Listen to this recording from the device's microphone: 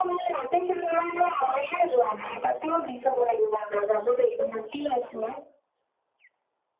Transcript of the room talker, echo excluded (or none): none